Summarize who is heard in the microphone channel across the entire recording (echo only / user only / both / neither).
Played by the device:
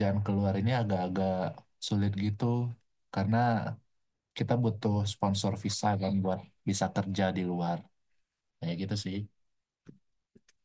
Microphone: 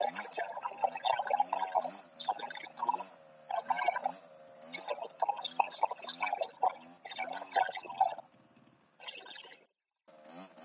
echo only